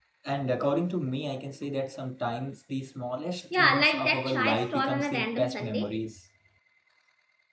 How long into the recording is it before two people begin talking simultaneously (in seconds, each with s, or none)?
3.5 s